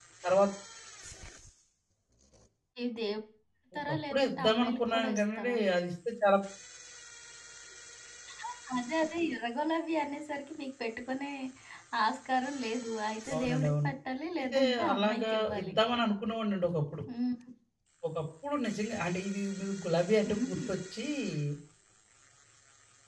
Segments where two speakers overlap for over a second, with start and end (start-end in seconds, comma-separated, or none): 3.9-5.6, 14.4-15.7